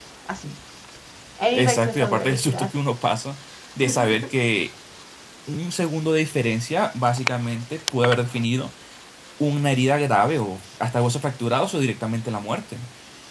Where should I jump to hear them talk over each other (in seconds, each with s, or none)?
1.5 s